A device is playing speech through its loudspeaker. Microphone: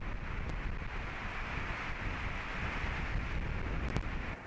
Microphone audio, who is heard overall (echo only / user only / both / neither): neither